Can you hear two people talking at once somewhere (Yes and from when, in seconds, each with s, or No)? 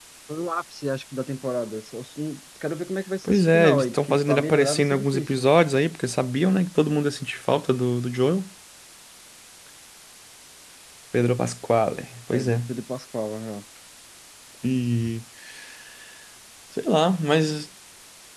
Yes, from 3.2 s